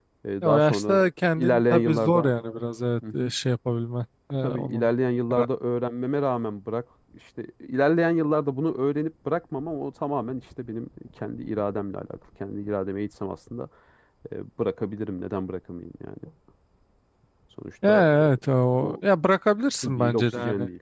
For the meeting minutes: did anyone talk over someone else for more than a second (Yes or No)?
Yes